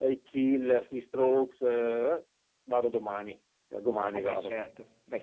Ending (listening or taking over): taking over